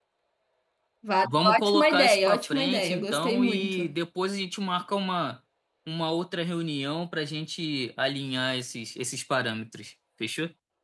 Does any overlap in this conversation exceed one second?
Yes, from 1.2 s

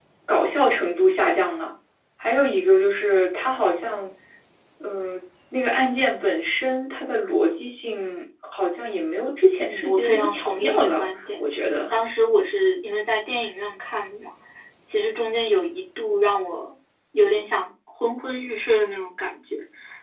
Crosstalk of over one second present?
Yes, from 9.6 s

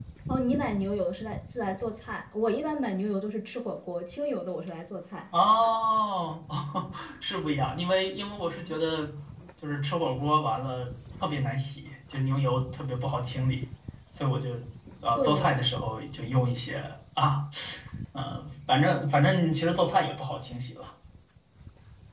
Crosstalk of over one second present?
No

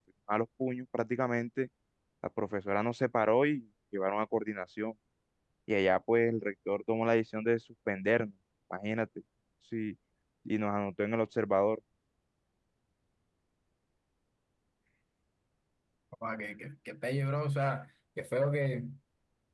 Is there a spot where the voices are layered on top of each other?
No

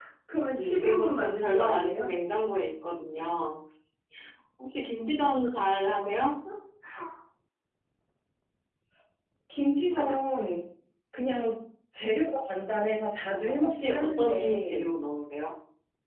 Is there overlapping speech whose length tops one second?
Yes, from 0.6 s

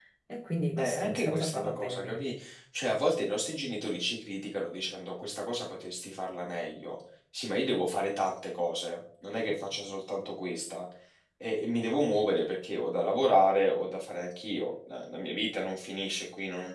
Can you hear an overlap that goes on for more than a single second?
Yes, from 0.8 s

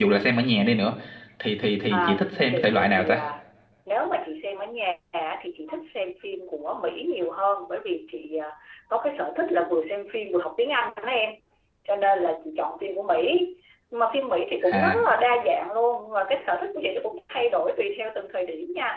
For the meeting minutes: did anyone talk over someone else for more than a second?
Yes, from 1.9 s

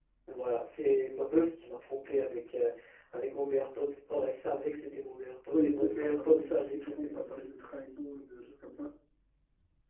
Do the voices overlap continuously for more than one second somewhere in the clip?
Yes, from 5.5 s

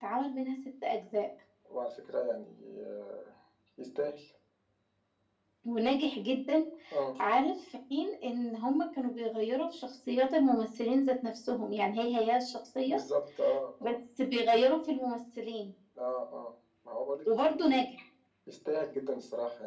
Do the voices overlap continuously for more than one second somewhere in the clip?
No

